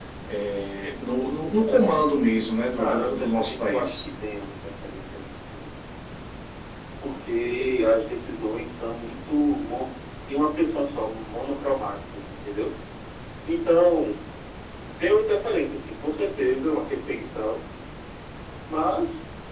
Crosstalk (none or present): present